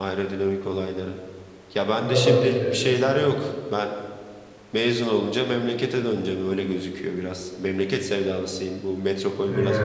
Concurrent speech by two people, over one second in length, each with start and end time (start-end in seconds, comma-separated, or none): 1.9-3.3